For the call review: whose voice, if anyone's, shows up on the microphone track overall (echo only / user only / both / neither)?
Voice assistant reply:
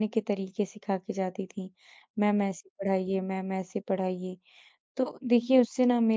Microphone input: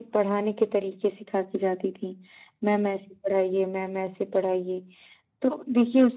echo only